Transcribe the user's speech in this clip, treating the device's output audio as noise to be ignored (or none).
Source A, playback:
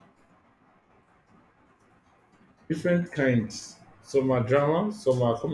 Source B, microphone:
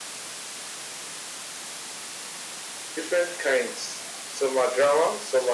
none